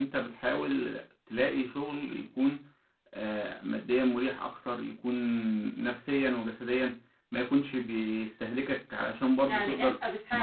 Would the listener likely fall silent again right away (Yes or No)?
No